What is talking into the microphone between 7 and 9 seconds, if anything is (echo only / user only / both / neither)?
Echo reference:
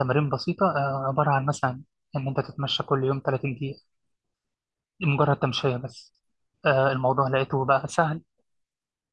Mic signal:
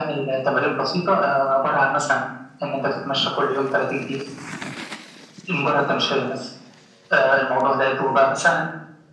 echo only